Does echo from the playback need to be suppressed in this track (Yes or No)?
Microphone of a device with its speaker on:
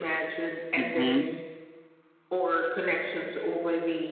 Yes